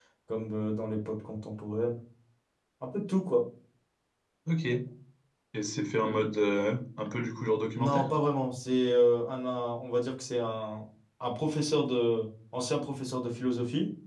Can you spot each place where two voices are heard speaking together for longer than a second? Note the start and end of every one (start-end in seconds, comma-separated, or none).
none